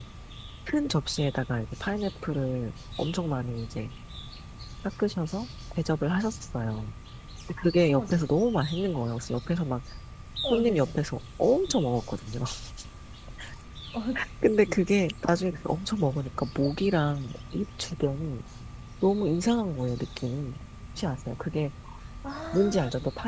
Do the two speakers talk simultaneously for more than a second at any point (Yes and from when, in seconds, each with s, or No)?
No